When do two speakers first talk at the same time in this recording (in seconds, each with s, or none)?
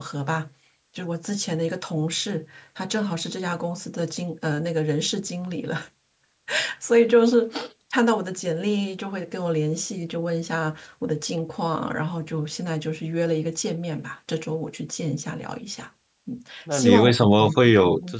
16.7 s